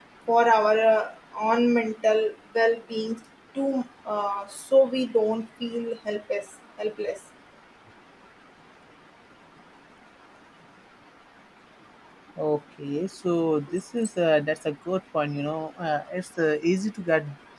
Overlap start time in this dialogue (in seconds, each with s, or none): none